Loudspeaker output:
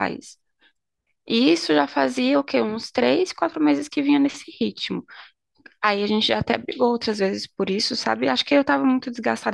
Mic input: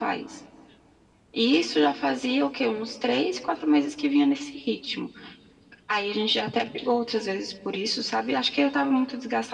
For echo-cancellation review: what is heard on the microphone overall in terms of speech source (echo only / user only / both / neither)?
echo only